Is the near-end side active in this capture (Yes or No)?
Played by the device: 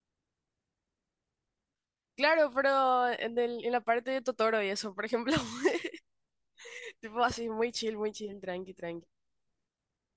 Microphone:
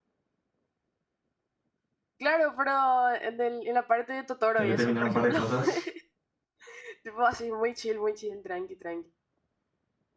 Yes